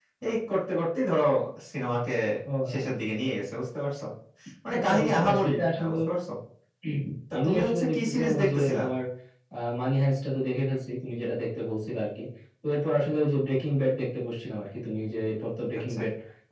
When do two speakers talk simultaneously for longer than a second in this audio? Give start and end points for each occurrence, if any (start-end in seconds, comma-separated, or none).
4.7-5.9, 7.4-8.8